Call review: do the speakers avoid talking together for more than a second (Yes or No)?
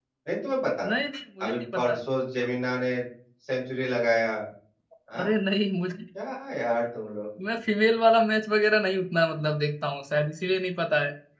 Yes